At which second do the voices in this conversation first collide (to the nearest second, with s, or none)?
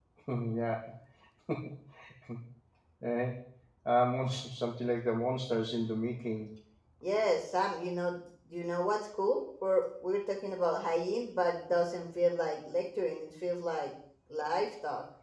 none